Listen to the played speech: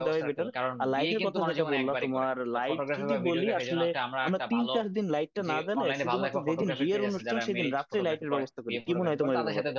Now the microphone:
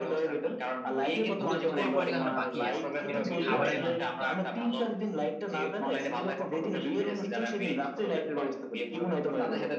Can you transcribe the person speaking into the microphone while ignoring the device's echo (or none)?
গুরুত্বপূর্ণ পরিমাণ এখন বাকি আছে এটা হচ্ছে খাবারের মেনু ঠিক করা